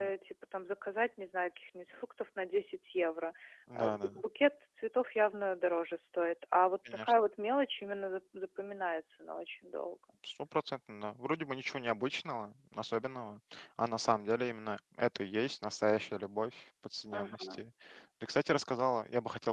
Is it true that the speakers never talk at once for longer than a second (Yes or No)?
Yes